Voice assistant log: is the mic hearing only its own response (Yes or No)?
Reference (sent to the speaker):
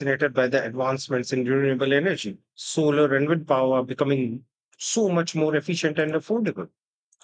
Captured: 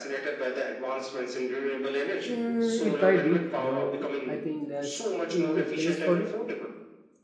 No